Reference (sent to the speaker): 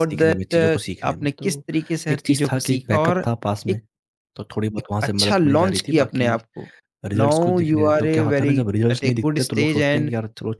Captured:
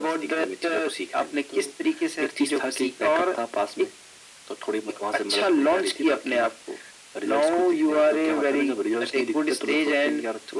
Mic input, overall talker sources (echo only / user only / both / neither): echo only